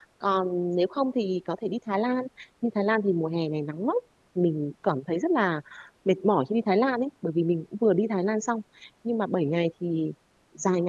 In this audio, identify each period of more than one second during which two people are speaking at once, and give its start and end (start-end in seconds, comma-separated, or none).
none